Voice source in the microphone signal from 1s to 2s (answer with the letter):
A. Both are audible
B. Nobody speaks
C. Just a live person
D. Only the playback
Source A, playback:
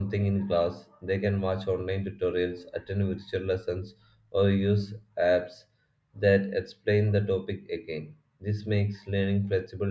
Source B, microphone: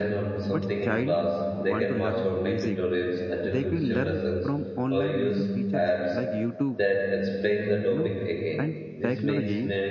A